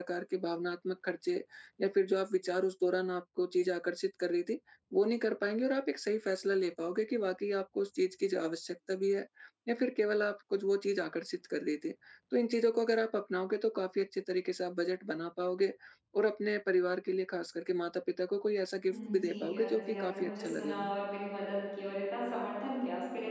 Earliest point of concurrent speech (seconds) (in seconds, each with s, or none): 18.9 s